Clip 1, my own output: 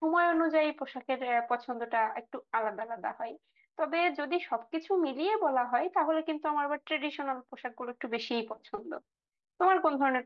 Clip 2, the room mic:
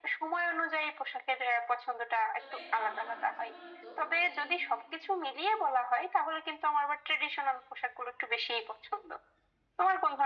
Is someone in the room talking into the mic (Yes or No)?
Yes